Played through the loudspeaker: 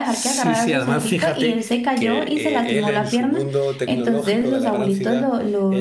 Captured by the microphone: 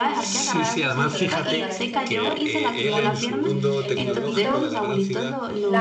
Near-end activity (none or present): present